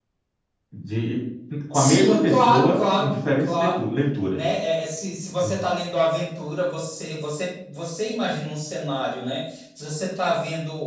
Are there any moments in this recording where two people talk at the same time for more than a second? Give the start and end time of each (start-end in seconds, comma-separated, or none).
1.7-3.9